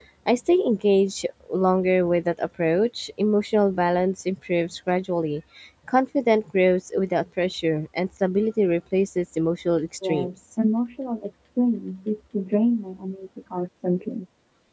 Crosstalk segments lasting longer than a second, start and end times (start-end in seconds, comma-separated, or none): none